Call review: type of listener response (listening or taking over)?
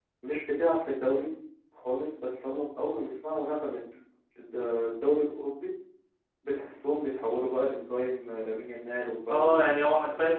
taking over